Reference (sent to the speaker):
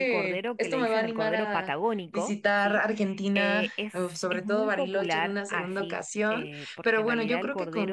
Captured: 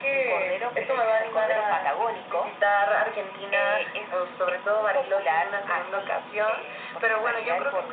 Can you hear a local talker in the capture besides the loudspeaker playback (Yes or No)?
No